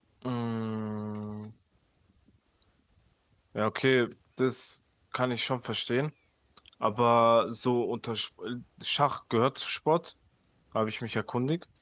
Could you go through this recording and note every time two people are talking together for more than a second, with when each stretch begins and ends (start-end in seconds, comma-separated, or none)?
none